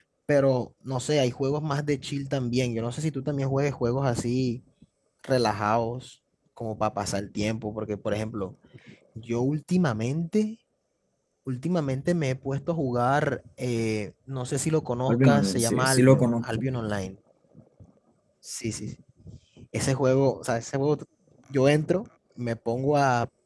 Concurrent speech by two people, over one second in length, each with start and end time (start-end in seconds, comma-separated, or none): 15.1-16.6